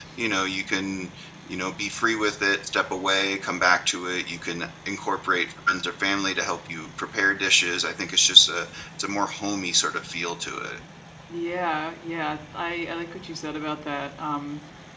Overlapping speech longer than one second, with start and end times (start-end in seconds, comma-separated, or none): none